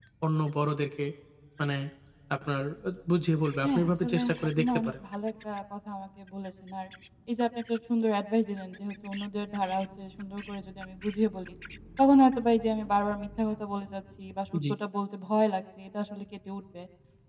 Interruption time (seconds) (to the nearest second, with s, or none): 4 s